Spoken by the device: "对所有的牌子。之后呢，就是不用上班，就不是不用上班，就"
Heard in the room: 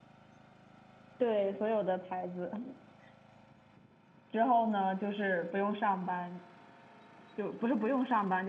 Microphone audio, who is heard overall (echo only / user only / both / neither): echo only